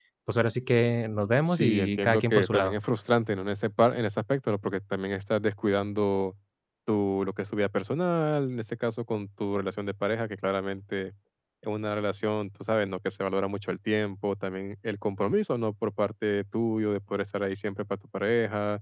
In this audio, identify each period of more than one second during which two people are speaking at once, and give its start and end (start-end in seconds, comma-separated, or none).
1.5-2.8